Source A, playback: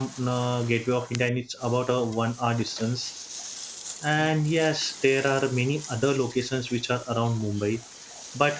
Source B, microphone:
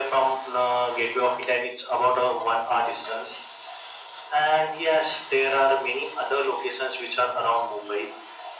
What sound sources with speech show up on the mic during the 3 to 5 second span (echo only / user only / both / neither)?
echo only